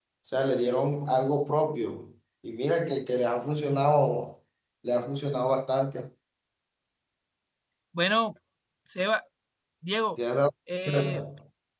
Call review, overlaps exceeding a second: none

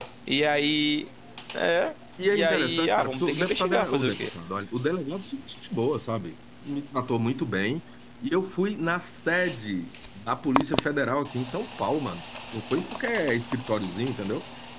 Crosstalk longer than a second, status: present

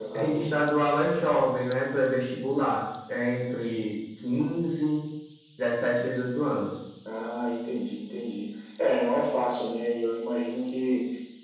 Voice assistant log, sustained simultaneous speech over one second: none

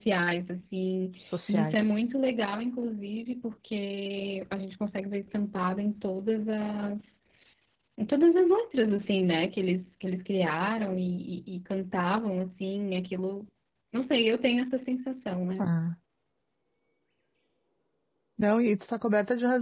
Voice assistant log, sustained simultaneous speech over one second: none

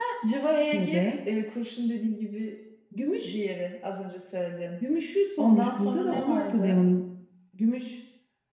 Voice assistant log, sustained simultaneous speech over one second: present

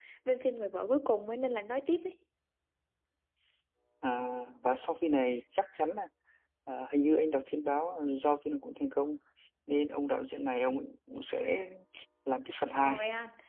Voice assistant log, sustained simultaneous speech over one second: none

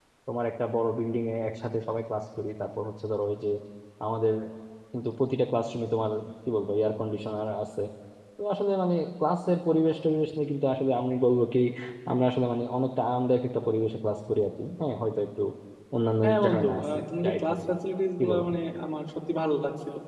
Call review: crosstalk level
present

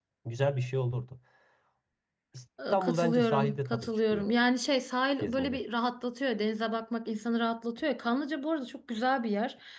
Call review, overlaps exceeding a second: present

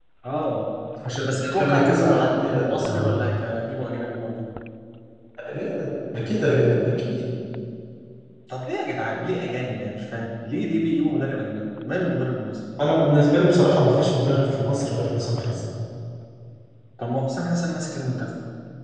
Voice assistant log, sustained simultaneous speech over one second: present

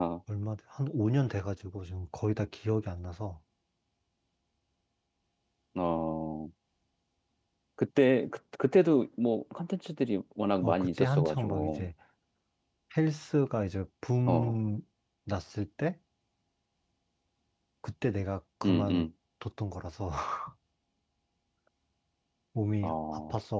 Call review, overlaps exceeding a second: present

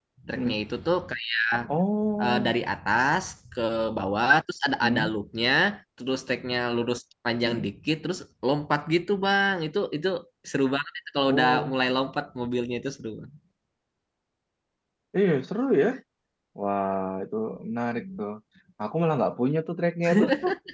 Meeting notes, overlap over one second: none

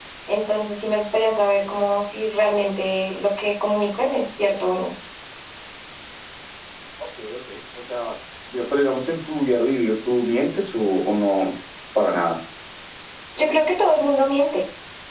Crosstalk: none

